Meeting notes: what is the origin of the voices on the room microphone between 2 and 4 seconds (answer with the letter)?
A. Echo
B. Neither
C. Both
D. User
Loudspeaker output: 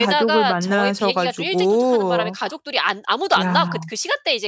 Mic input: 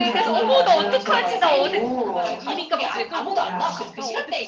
C